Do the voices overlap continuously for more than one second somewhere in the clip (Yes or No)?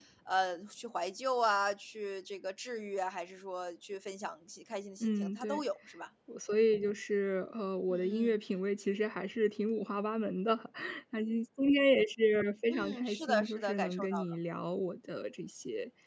Yes